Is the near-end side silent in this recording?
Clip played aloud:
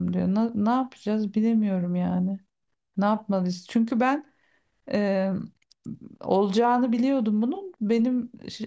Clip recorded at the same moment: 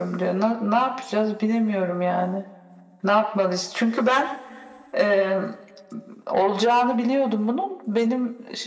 Yes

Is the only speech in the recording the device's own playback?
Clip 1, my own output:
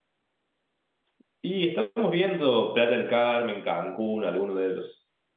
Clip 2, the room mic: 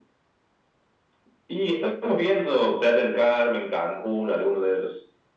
Yes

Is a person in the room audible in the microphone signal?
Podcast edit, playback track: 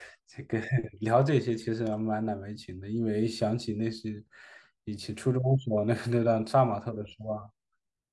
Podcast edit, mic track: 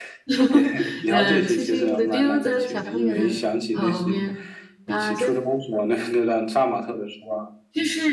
Yes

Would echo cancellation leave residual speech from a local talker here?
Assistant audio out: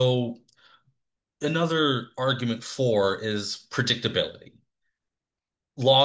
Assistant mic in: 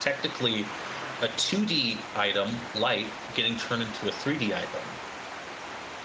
Yes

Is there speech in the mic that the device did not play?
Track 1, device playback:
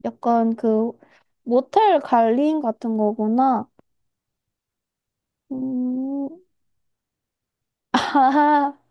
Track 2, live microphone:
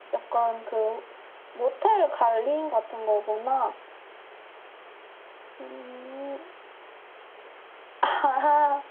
No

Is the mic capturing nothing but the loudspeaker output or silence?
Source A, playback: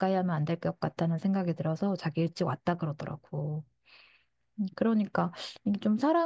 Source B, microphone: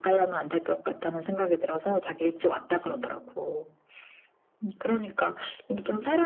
No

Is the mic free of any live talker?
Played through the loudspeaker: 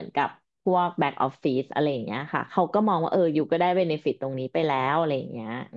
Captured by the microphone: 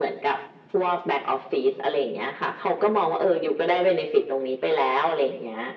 Yes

